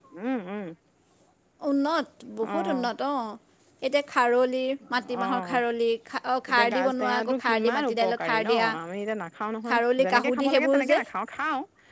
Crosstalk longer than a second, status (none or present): present